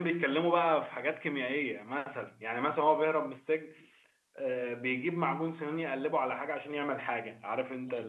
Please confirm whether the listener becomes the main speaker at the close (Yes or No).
Yes